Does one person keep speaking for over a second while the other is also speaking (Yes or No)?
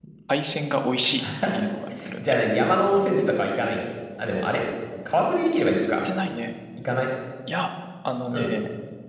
No